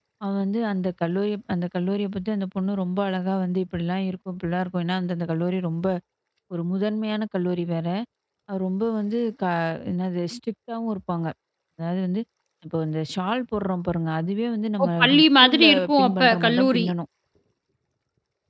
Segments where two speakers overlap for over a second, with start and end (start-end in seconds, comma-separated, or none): 14.8-16.9